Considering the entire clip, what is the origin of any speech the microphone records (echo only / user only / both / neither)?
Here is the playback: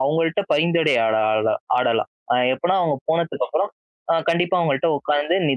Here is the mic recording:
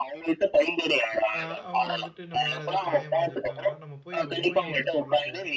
both